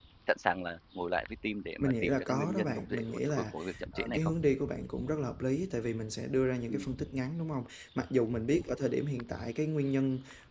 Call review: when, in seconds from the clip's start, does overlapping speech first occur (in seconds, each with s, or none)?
1.8 s